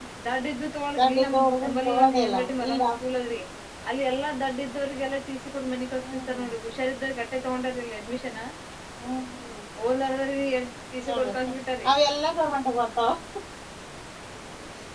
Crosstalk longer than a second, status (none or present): present